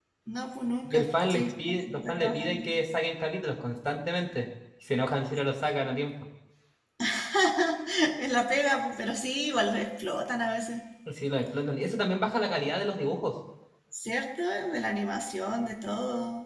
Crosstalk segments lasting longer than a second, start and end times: 0.8-2.7

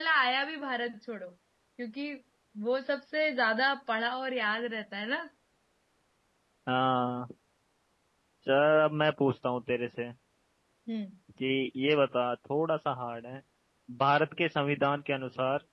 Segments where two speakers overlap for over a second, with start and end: none

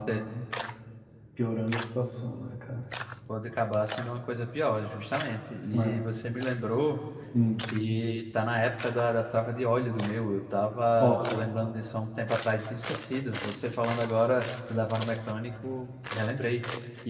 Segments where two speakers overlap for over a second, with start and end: none

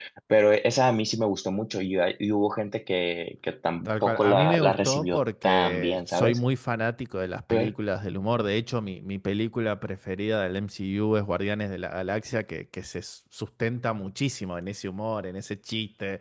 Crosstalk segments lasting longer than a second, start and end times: 3.9-6.4

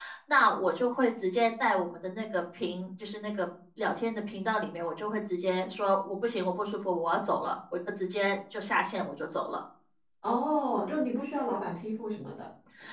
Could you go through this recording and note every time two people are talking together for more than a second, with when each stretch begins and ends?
none

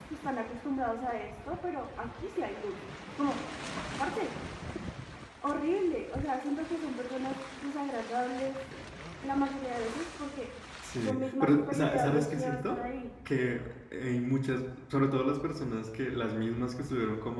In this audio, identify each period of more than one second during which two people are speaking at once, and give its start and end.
11.0-12.8

